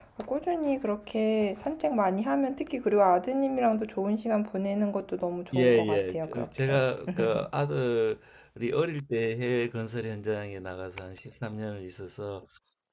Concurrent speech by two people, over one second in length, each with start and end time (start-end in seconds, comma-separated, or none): 5.5-6.8